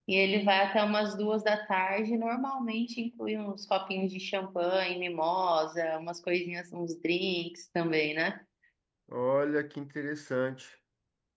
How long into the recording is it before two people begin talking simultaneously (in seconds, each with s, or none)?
none